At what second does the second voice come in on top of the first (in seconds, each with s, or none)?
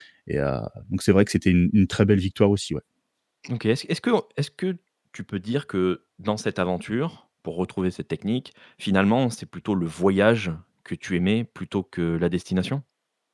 none